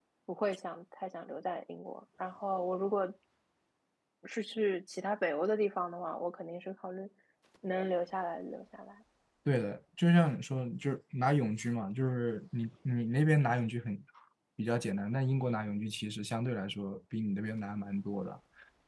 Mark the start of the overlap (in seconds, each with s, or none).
none